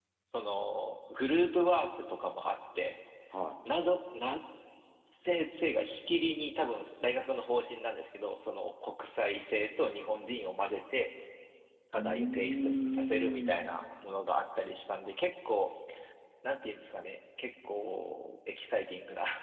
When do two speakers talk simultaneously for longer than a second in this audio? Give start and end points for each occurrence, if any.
11.9-13.6

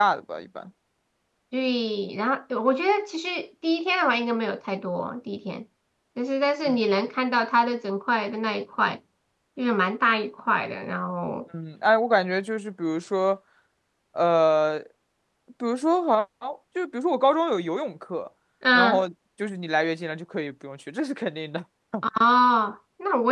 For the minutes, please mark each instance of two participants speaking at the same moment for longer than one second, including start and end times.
none

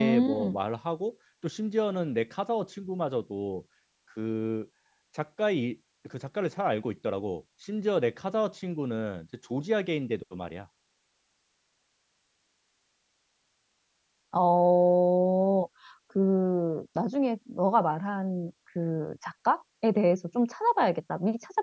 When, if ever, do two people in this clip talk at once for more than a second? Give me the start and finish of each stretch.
none

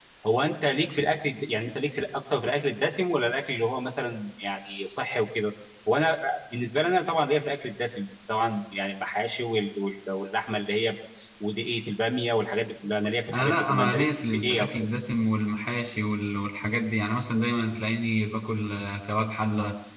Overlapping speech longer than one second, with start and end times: 13.3-14.7

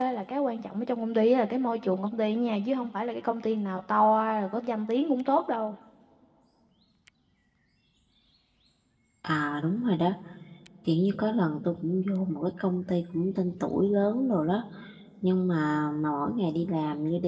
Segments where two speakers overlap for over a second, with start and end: none

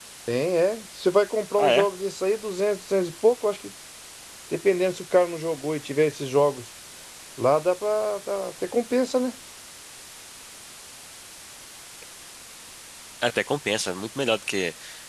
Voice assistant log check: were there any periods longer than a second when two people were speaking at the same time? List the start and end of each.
none

